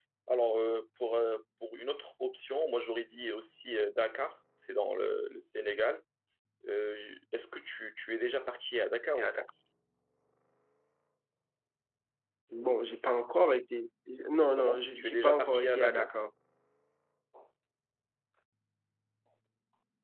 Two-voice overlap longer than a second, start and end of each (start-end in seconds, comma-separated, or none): 14.6-16.1